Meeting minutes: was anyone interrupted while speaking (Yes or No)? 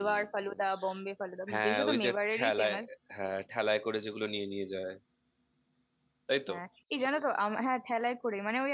Yes